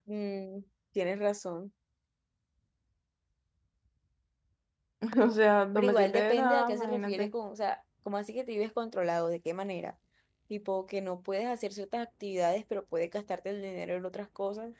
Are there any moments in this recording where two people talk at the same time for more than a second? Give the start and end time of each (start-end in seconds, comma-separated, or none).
5.8-7.3